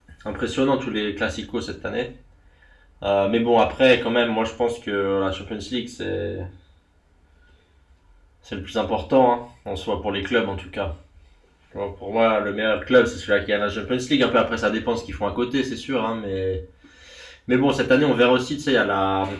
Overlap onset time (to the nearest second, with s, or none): none